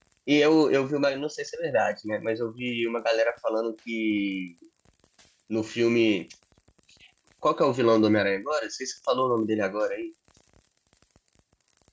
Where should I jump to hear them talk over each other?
none

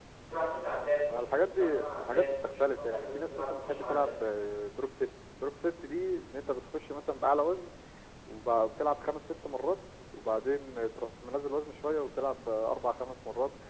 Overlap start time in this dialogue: 1.1 s

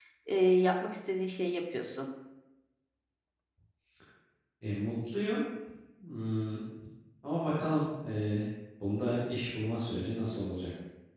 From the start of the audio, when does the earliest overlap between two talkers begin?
none

